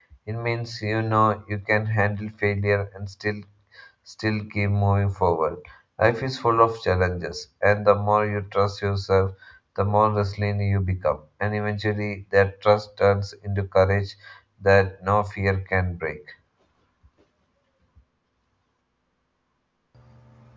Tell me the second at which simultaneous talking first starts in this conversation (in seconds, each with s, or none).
none